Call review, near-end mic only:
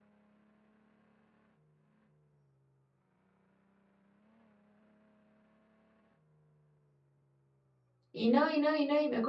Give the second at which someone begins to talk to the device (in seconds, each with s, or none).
8.1 s